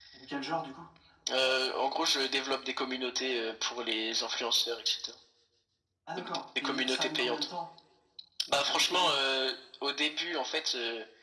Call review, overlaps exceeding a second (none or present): present